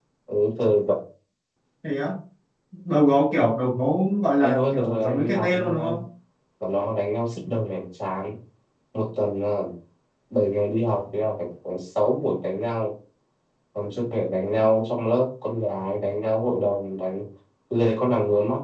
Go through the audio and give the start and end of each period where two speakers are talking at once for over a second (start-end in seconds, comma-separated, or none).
4.4-5.7